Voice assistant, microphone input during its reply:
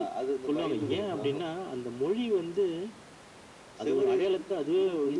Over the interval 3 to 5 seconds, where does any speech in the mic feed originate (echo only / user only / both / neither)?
echo only